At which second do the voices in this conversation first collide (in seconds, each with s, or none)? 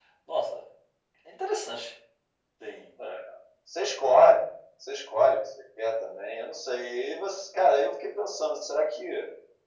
none